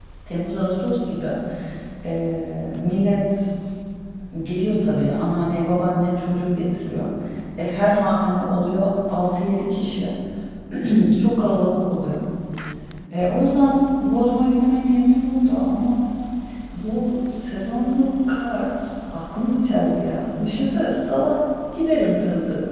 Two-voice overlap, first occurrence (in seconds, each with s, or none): none